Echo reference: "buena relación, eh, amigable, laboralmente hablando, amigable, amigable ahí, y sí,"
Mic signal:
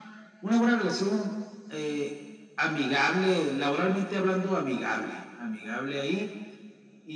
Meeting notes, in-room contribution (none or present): none